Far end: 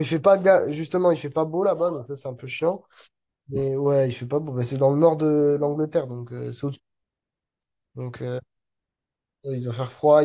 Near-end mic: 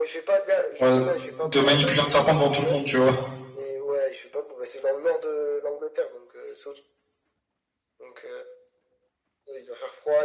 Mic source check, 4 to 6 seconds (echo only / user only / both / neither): echo only